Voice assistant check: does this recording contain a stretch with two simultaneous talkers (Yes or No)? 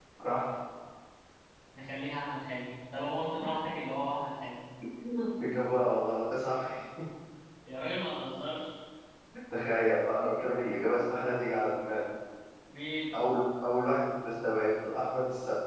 No